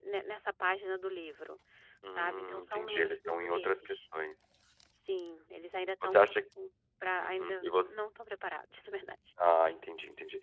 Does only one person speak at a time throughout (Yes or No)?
No